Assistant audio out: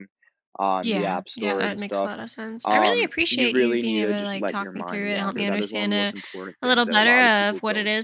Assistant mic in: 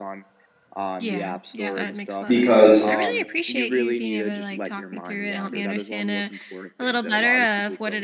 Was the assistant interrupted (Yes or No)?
Yes